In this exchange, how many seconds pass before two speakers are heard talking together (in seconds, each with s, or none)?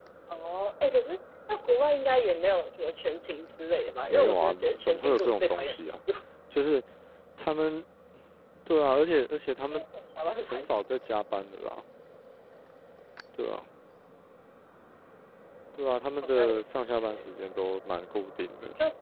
4.1 s